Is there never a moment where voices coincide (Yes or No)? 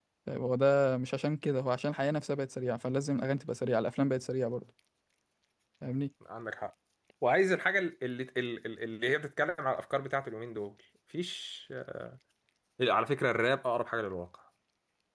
Yes